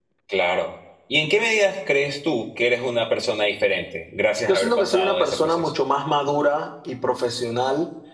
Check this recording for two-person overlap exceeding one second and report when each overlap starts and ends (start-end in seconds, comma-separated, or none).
4.5-5.7